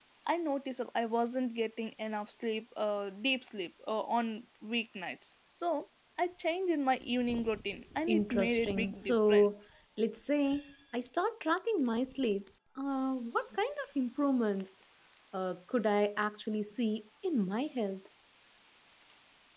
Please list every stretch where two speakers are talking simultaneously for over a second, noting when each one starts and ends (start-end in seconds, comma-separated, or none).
8.1-9.5